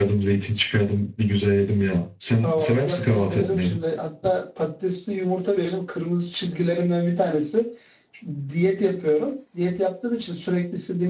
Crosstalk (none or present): present